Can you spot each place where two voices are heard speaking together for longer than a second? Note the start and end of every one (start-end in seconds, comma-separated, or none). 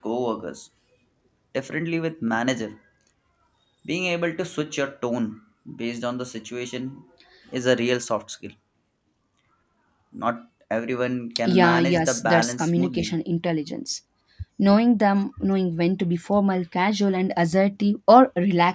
11.4-13.1